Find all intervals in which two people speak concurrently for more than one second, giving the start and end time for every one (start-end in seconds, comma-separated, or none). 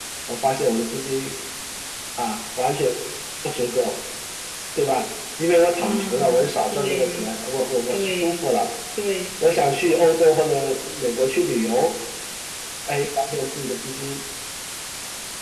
5.8-7.3